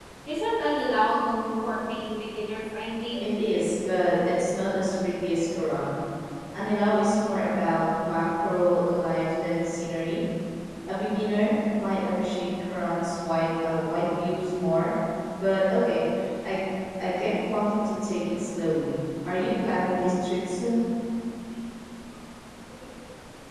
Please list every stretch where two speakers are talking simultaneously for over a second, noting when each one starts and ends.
none

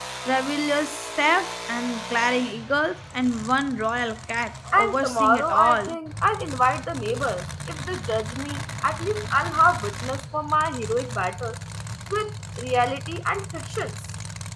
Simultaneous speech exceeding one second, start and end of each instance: 4.7-6.0

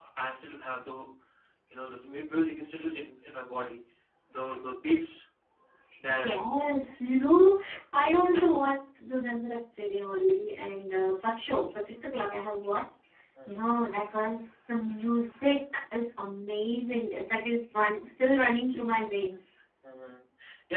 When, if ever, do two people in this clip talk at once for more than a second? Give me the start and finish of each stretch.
none

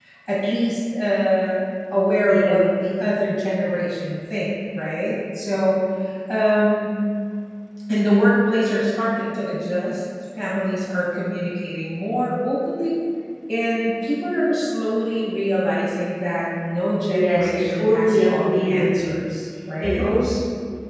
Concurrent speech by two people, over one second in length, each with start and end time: 17.1-19.2

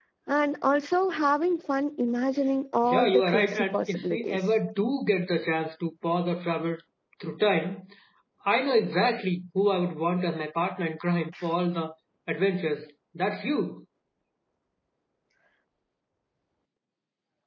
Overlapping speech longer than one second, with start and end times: 2.8-4.4

